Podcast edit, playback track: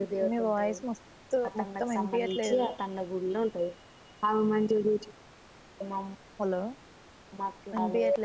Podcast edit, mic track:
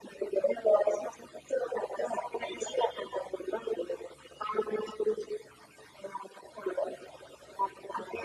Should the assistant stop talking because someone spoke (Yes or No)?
No